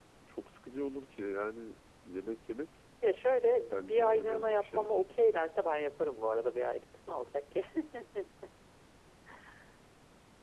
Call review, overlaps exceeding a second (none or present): present